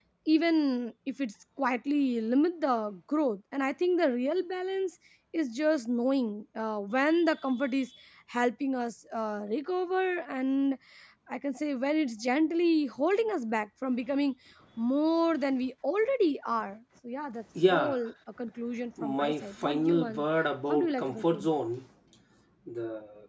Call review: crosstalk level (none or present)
present